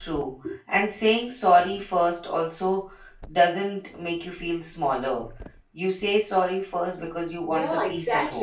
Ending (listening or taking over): taking over